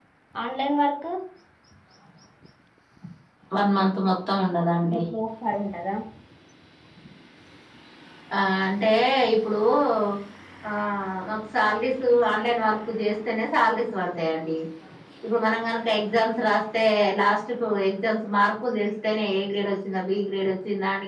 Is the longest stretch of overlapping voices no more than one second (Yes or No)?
Yes